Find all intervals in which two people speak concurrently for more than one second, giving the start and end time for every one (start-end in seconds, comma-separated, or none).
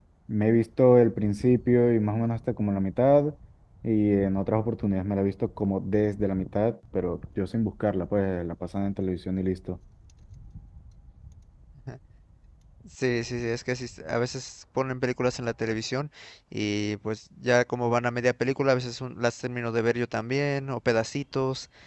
none